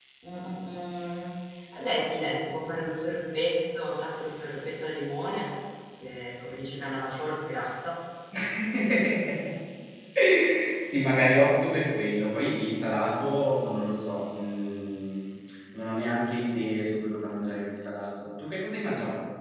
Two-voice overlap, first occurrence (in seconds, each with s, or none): none